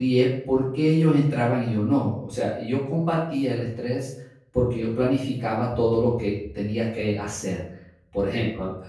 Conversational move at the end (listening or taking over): listening